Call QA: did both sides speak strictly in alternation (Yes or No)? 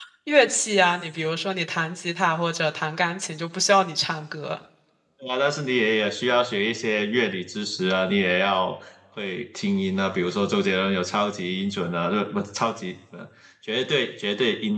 Yes